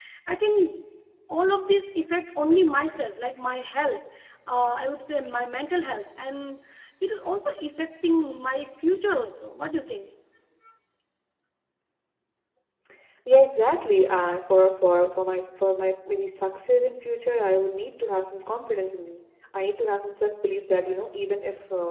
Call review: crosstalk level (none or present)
none